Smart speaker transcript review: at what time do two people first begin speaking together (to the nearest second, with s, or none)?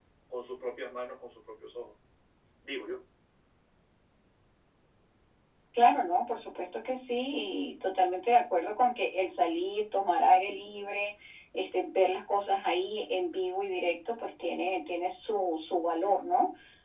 none